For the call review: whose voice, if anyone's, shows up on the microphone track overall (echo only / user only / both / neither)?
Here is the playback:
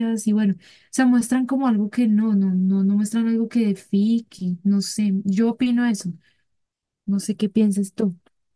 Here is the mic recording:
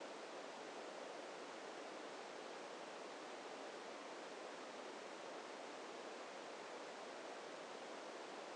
neither